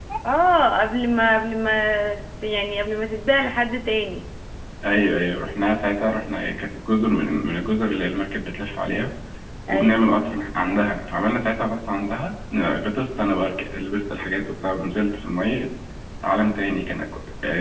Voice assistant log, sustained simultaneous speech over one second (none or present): none